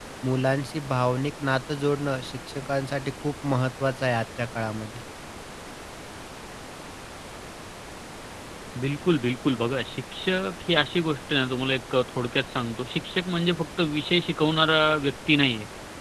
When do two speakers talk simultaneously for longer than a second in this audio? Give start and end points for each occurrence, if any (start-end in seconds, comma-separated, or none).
none